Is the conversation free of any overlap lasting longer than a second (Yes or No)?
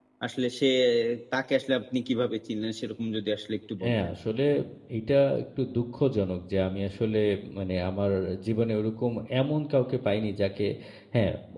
Yes